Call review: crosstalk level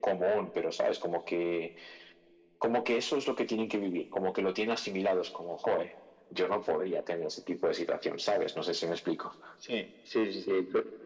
none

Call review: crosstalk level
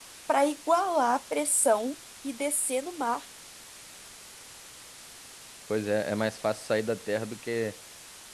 none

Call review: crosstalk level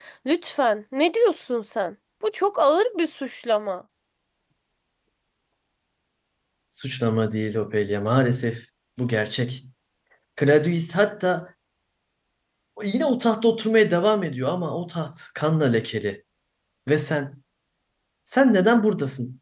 none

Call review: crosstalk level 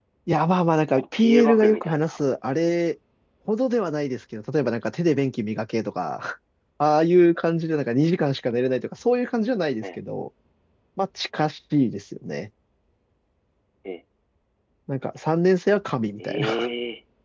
present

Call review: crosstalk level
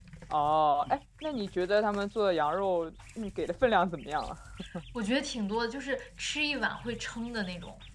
none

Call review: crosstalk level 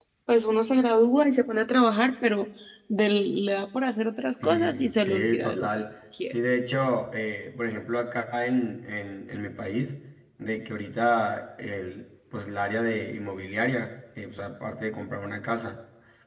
present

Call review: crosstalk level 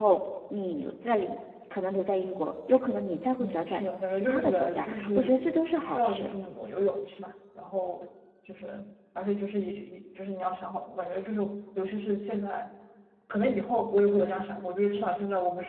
present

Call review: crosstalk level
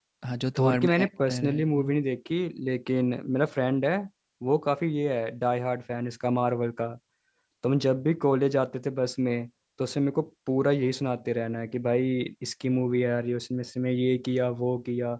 present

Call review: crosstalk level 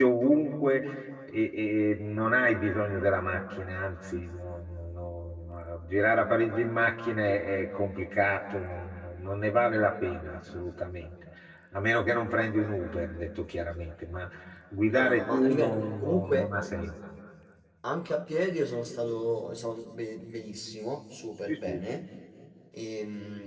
present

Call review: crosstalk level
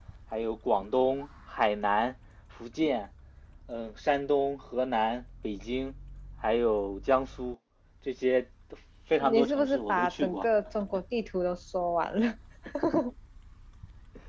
present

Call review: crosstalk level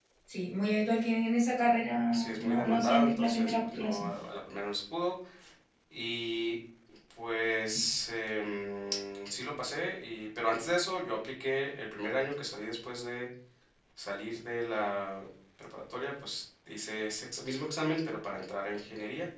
present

